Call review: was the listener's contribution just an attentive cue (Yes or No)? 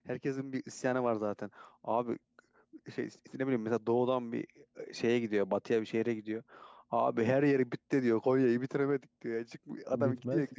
Yes